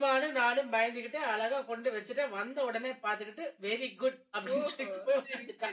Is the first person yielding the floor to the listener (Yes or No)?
Yes